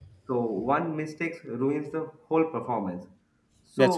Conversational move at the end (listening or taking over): listening